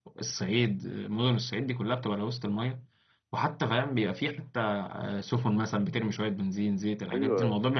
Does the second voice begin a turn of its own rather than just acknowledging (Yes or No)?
Yes